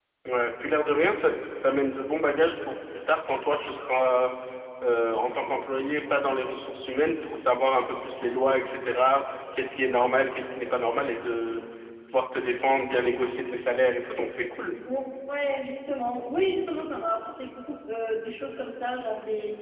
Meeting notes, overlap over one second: none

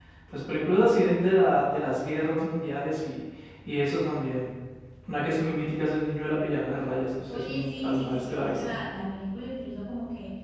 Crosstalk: present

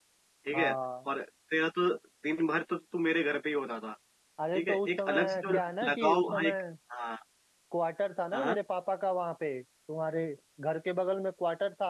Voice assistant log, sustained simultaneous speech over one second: present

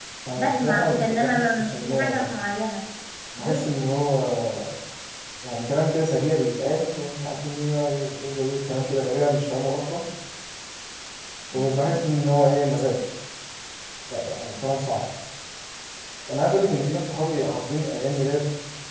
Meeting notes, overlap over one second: present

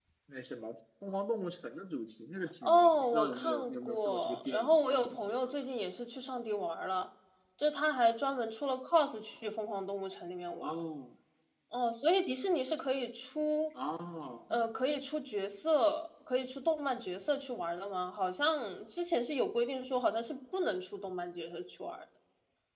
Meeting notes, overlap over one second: present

